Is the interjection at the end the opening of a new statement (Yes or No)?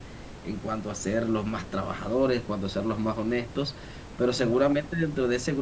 No